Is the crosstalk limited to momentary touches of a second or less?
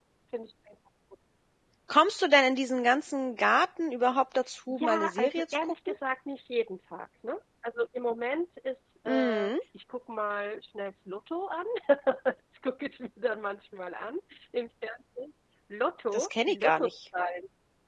No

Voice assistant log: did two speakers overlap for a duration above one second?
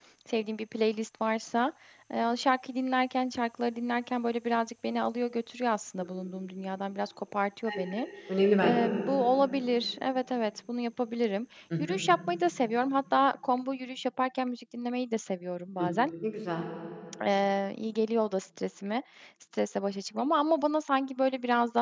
No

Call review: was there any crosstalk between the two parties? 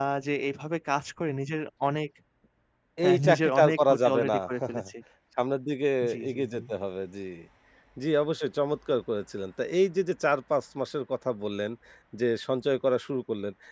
Yes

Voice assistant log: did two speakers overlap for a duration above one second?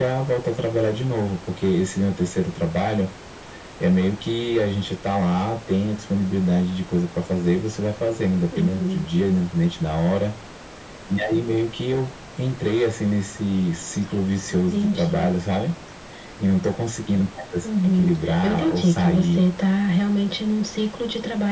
Yes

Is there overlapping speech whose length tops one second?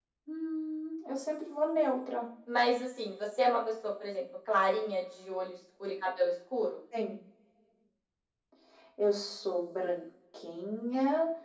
No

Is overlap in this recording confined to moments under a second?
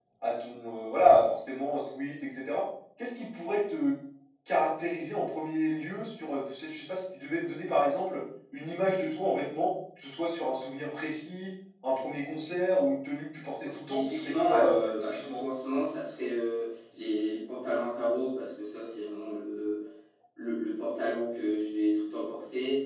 No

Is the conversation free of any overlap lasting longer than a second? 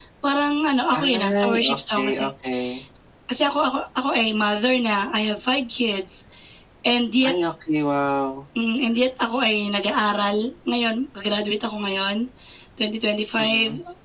No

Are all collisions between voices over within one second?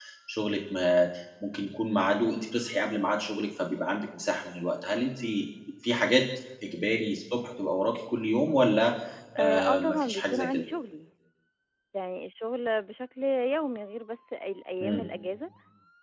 No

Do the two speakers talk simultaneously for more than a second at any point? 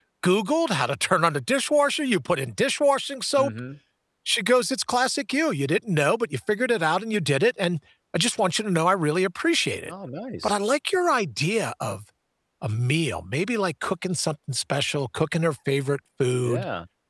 No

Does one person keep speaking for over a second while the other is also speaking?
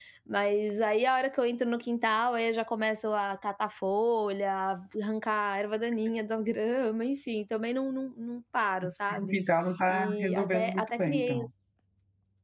Yes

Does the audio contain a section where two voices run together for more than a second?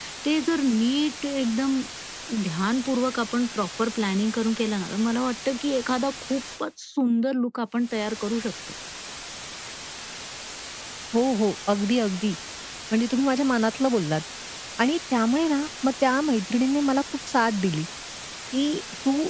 No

